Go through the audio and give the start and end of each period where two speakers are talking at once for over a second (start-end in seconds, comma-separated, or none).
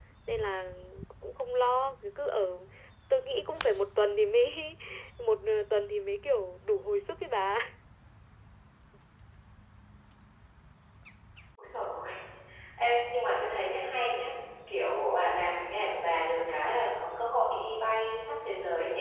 none